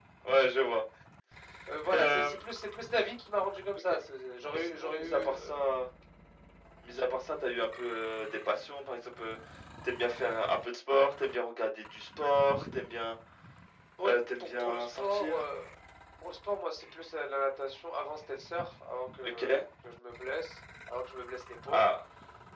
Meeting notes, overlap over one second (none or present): present